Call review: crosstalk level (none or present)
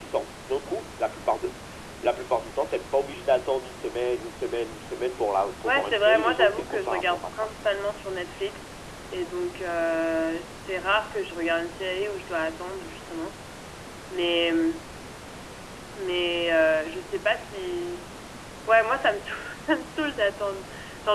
present